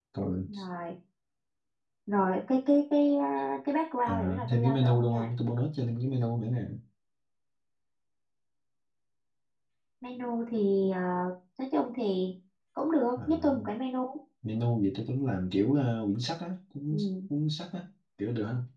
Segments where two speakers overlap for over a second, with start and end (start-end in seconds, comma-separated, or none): 4.1-5.3